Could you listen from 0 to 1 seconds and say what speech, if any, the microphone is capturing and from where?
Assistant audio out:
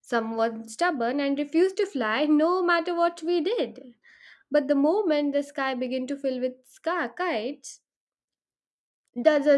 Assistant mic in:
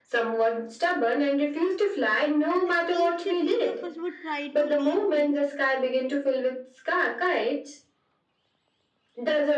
echo only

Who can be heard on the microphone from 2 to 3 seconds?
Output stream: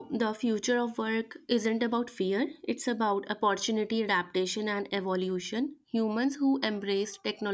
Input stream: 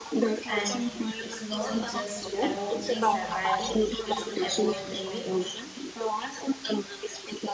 both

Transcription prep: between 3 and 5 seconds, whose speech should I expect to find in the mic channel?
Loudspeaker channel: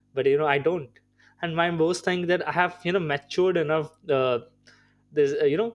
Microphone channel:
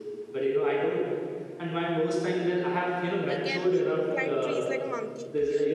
both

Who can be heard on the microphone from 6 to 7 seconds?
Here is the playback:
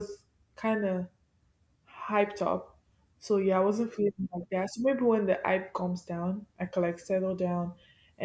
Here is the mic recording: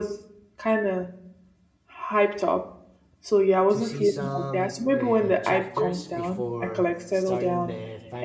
both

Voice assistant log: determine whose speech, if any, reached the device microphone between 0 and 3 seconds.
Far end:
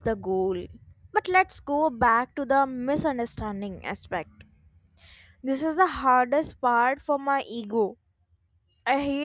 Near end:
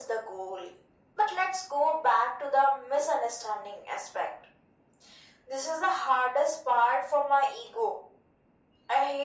echo only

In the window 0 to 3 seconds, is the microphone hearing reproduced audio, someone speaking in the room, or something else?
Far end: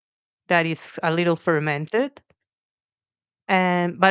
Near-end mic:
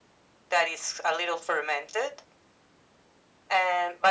echo only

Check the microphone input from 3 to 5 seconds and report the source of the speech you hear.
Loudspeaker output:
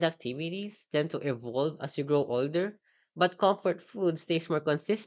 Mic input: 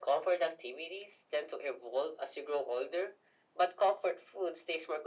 echo only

